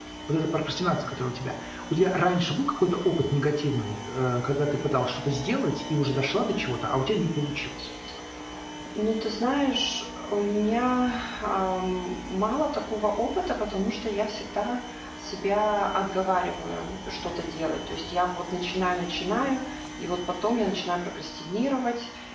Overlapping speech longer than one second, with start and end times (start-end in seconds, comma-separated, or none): none